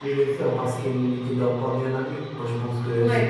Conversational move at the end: listening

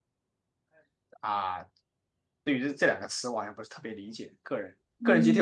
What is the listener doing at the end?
taking over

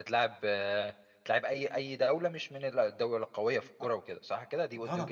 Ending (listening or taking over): taking over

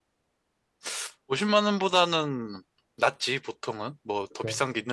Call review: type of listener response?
listening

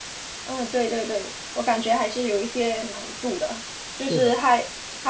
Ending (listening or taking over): listening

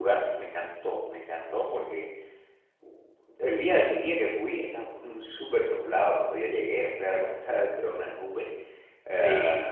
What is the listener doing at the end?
listening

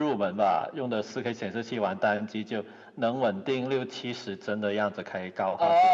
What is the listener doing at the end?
taking over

